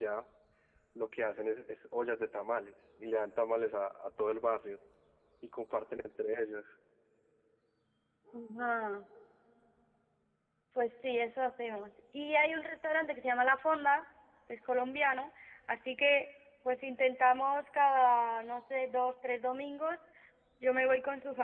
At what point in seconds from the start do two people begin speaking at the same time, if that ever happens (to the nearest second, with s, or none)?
none